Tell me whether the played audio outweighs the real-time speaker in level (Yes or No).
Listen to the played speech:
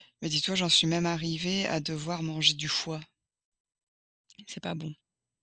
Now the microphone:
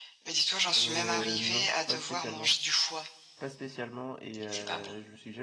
Yes